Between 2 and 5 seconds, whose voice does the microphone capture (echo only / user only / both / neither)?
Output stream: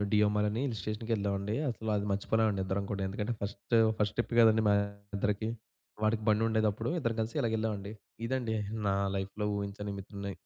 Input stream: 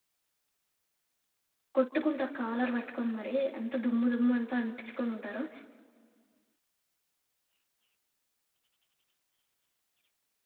user only